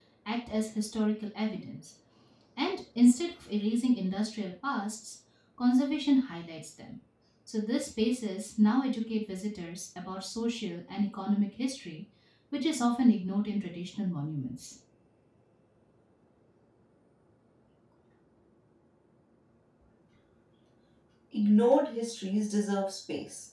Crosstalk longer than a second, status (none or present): none